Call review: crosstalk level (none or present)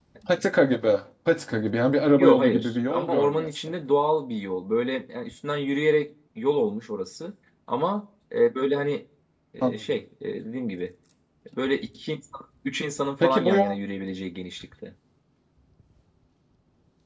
present